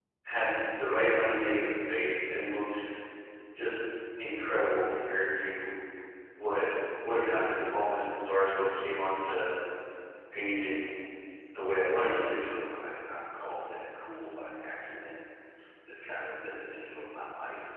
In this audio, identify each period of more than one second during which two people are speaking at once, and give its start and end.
none

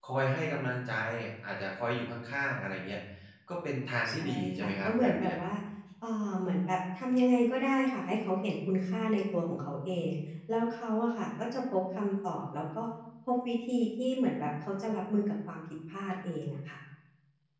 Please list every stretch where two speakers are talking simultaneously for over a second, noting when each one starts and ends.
4.1-5.4

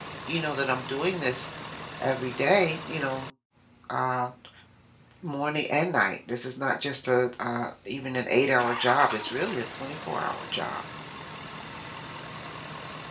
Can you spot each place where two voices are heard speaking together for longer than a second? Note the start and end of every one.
none

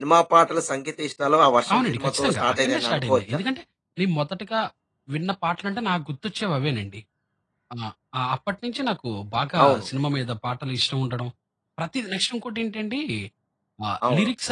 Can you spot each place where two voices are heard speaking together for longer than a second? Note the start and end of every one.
1.7-3.2

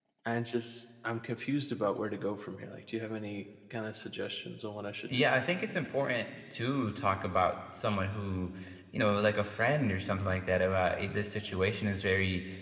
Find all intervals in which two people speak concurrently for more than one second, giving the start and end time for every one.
none

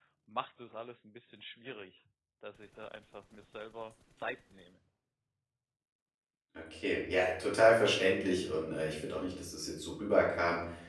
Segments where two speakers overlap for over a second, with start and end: none

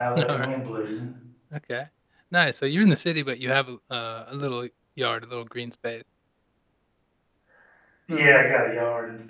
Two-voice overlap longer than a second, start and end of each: none

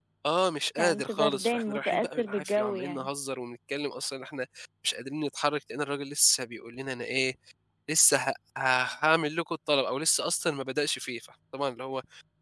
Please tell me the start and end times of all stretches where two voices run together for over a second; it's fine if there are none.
0.8-3.1

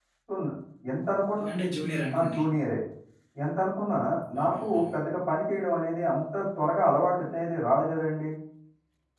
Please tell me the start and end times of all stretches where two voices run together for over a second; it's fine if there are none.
none

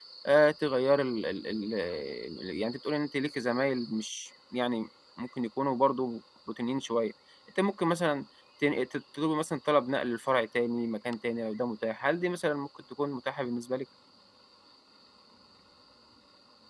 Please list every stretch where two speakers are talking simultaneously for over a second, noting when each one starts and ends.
none

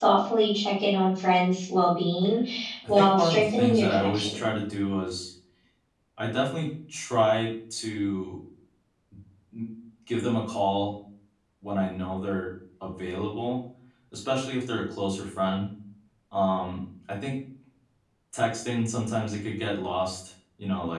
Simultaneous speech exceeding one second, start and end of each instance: 2.9-4.4

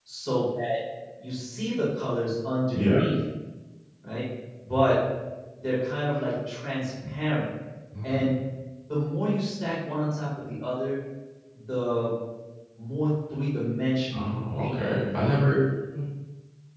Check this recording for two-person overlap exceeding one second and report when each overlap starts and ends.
14.1-15.5

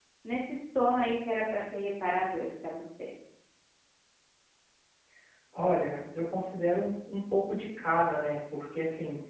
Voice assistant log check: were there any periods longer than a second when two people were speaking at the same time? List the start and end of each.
none

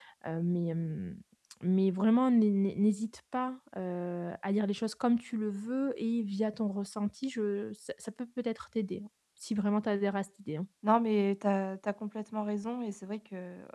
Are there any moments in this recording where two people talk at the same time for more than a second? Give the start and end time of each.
none

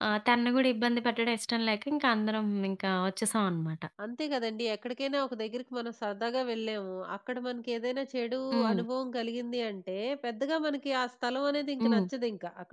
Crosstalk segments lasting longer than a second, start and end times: none

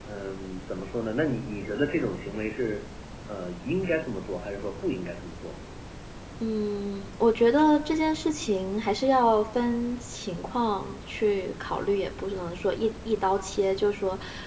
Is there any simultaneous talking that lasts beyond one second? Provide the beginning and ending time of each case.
none

